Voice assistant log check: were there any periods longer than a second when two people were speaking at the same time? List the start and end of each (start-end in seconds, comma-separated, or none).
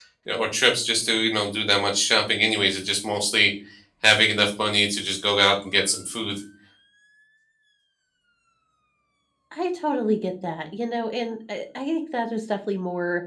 none